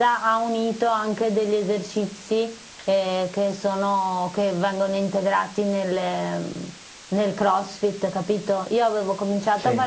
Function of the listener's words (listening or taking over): listening